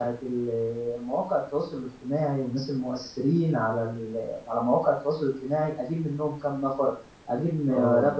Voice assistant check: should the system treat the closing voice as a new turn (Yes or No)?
No